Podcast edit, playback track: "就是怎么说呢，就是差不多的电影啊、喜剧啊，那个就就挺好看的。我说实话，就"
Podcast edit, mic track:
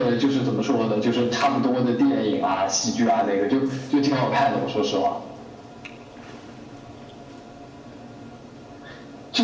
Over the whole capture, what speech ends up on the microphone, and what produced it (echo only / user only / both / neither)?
echo only